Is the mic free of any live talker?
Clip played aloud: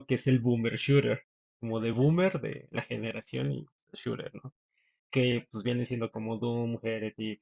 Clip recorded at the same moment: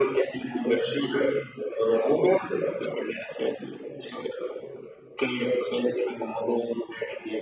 Yes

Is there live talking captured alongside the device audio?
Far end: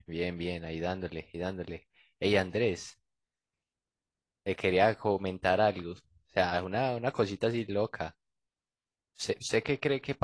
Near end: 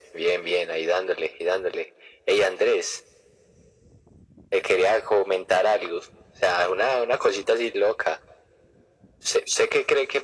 No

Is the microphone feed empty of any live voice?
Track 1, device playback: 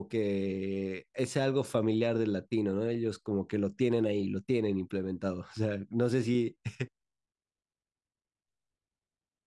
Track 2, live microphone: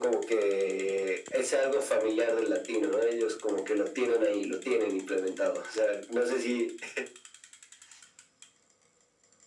Yes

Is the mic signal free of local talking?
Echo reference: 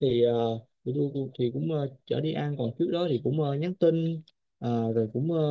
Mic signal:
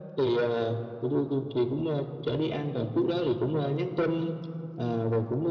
Yes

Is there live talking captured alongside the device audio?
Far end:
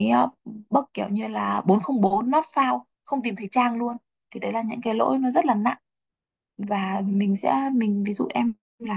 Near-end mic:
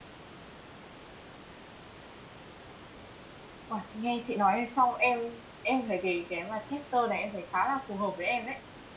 Yes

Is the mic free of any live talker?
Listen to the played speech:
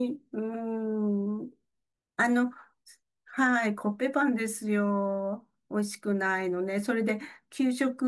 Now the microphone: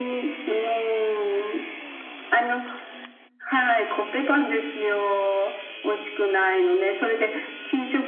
Yes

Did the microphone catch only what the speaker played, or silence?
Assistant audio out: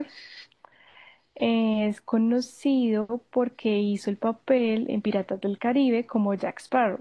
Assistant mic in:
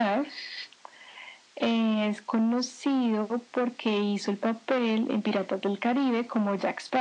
Yes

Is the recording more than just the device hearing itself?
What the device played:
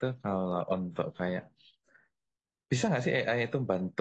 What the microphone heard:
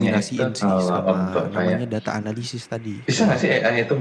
Yes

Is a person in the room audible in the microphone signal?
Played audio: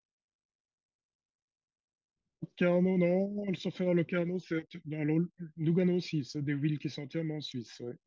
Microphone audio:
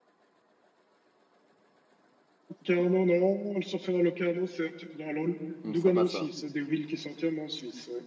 Yes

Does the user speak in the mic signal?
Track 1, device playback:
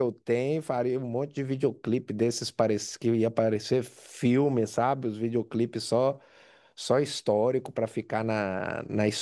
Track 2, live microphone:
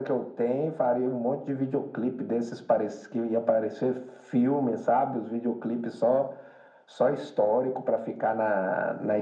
No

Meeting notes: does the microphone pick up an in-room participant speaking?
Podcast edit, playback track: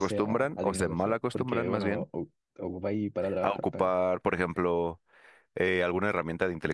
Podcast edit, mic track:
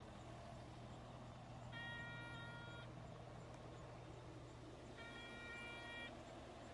No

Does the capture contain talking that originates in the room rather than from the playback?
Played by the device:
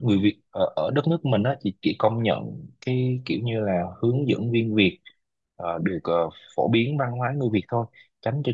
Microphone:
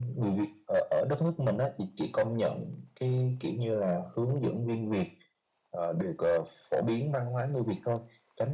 No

